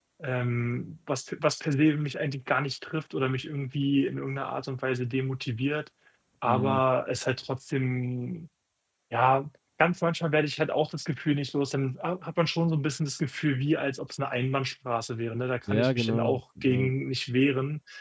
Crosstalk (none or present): present